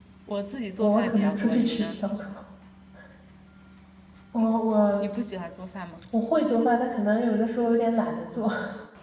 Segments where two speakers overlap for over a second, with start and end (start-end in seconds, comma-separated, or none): 0.8-2.0